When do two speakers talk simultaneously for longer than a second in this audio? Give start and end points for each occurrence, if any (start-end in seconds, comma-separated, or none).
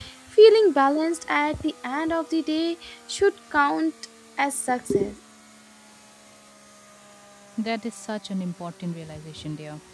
none